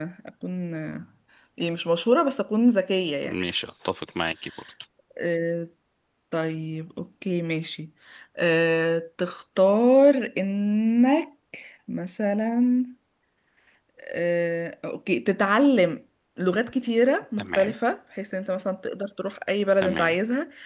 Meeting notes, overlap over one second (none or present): none